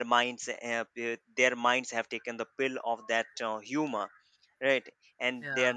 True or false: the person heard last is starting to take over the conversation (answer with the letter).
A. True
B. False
B